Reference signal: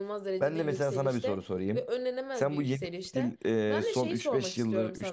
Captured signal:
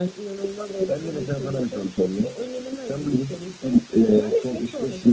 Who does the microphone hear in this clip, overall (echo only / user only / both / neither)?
echo only